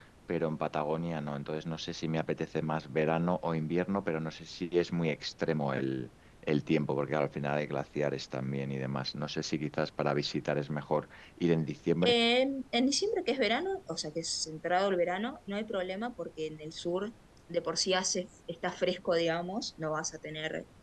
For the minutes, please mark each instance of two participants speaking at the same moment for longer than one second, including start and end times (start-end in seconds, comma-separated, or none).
none